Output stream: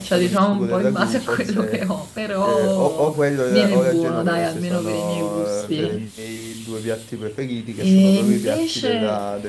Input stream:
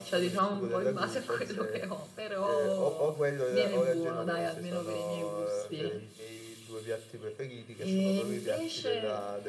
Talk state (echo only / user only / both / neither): echo only